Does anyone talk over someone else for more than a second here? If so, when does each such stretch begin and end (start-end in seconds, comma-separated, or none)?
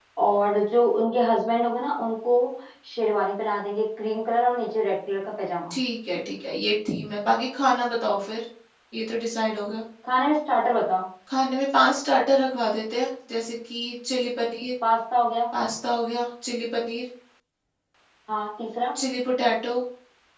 none